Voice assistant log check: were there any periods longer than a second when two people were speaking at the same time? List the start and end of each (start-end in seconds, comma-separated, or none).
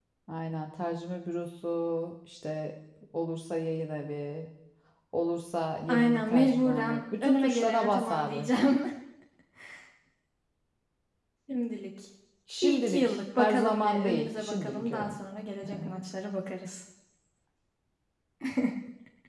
5.9-8.5, 12.6-15.2